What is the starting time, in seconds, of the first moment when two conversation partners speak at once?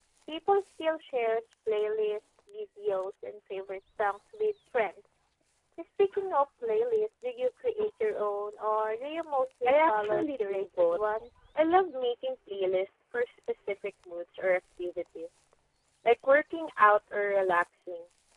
9.7 s

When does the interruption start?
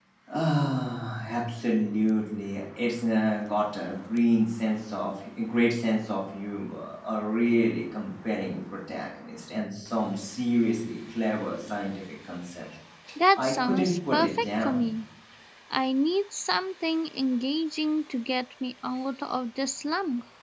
13.4 s

